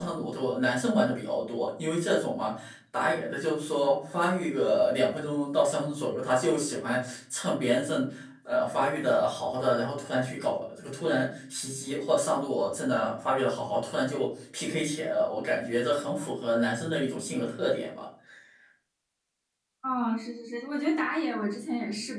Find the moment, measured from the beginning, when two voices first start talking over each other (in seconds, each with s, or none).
none